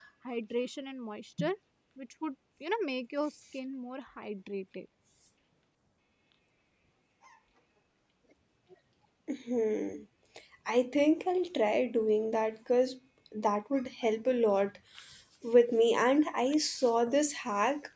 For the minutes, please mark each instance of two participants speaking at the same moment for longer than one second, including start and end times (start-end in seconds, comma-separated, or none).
none